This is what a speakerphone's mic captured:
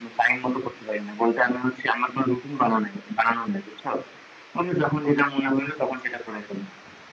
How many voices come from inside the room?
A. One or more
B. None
B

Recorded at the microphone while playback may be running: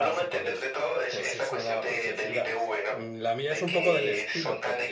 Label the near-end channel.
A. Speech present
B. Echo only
A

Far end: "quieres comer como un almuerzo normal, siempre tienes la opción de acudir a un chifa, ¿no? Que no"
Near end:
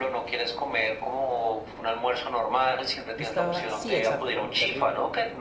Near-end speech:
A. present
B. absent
A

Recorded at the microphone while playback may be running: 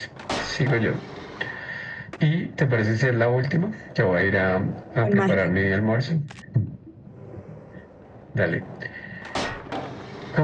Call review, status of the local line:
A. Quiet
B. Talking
B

